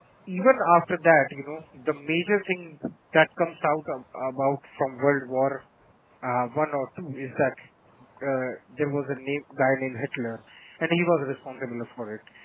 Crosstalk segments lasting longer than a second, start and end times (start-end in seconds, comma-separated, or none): none